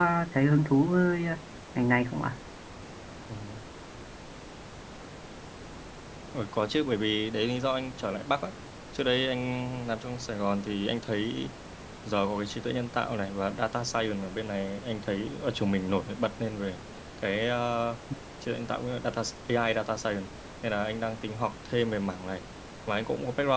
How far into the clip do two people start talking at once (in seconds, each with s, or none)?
none